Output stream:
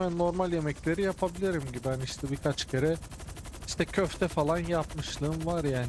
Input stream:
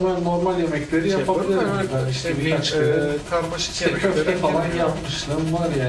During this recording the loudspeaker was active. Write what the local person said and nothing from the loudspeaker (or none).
şey yapıyorum. Yani öyle k- ne bileyim e, karmaşık yemeklere girmiyorum.